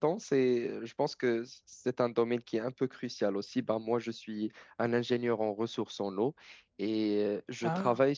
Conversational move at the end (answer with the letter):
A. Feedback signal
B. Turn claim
A